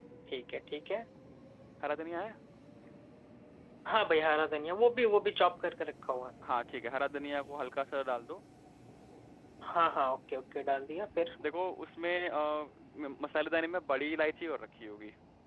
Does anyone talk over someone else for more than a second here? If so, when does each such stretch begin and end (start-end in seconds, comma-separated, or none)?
none